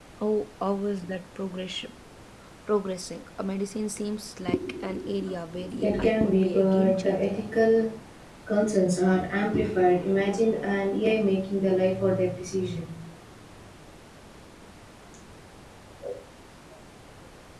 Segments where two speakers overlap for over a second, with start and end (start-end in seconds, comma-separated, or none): 5.8-7.3